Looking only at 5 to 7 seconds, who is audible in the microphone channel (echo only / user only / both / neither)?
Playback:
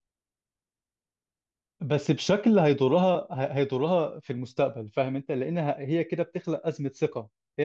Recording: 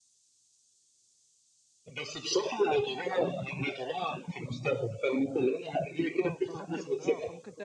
both